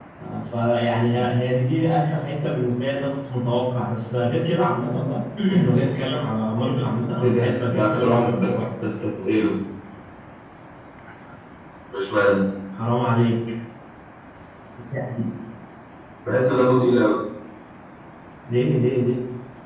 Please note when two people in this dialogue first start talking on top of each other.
7.2 s

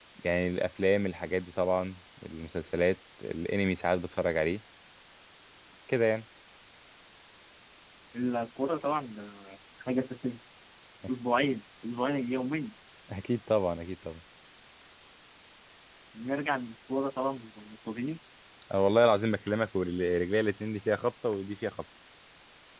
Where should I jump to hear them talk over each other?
none

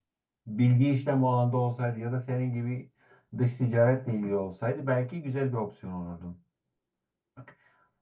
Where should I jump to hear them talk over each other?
none

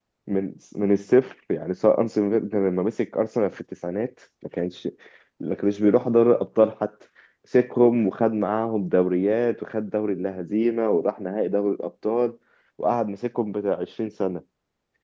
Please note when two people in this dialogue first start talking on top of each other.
none

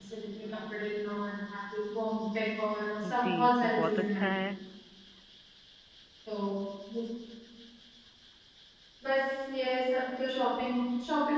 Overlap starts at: 3.0 s

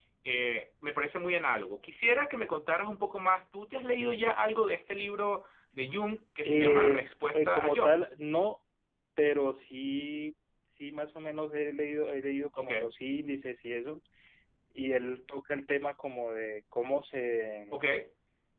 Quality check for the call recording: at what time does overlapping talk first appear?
6.5 s

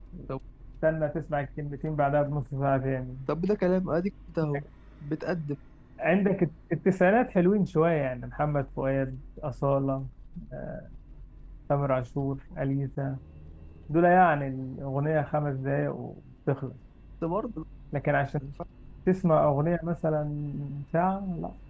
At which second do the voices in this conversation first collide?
none

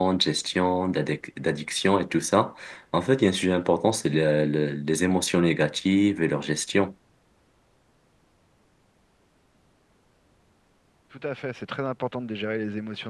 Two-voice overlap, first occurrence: none

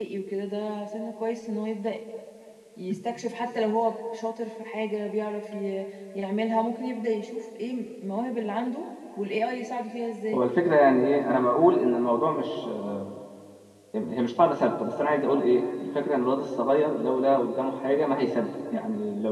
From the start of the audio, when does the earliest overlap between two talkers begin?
none

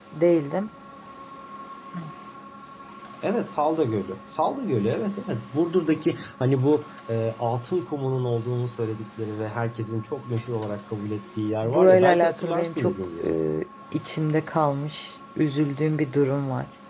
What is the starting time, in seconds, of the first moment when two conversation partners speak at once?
11.6 s

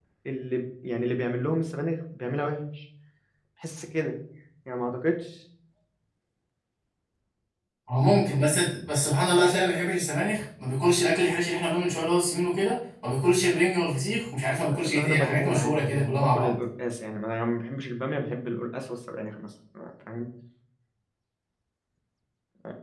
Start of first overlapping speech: 14.6 s

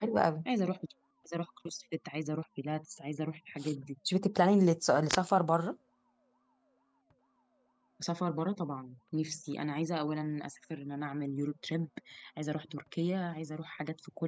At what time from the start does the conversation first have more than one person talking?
none

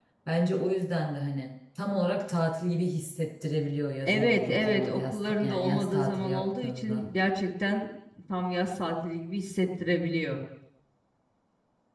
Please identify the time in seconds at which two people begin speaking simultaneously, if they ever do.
4.0 s

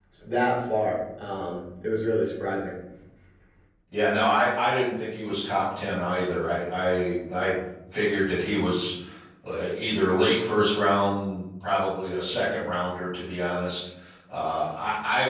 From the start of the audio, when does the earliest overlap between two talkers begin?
none

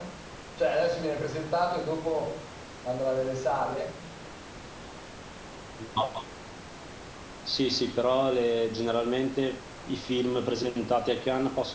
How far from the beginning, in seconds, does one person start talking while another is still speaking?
none

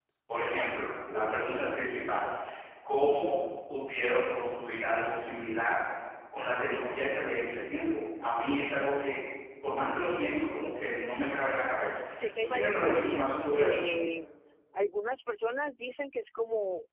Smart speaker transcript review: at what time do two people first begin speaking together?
12.4 s

